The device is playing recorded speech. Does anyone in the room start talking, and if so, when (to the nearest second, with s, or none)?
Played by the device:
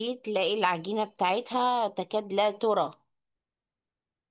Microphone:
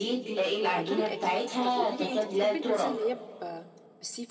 1 s